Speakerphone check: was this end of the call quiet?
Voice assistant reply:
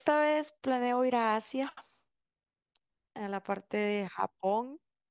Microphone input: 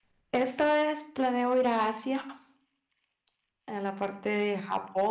Yes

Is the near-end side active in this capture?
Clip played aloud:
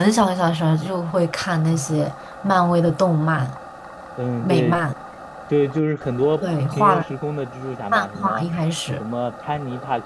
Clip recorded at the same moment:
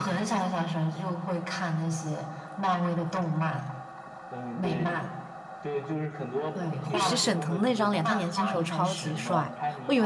Yes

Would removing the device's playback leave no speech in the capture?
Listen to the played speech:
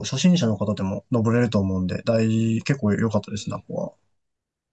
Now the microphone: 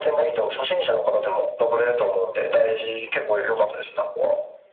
Yes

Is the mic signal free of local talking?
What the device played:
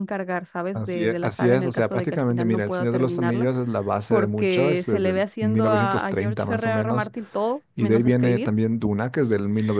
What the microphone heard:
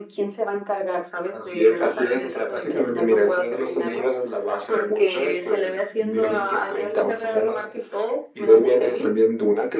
Yes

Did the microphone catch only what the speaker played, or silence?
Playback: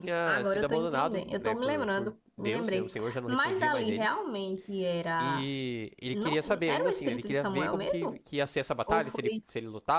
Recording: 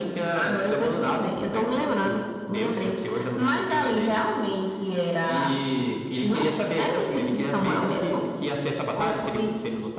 Yes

